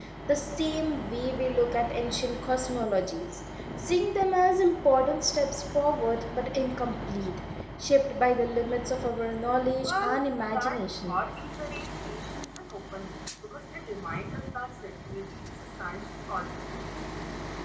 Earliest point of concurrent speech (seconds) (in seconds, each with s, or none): 9.8 s